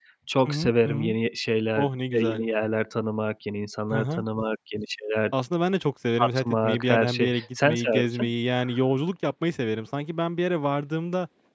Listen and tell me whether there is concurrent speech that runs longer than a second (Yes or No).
Yes